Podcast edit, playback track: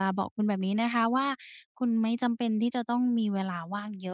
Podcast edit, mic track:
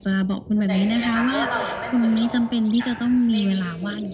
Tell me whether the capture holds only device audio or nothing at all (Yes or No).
No